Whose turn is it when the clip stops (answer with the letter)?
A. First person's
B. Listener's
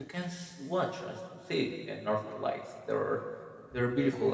A